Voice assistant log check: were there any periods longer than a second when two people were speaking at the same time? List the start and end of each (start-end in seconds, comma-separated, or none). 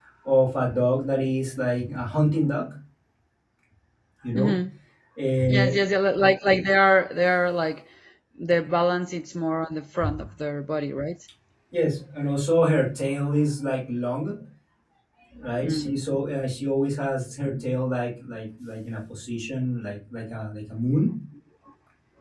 none